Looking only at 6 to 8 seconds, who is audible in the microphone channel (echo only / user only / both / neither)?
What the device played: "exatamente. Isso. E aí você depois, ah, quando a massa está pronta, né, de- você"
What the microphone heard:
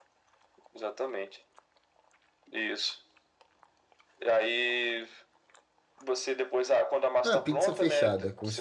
both